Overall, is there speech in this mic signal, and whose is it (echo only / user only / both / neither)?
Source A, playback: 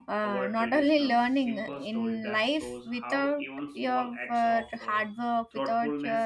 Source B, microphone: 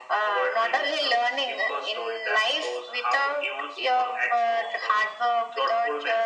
echo only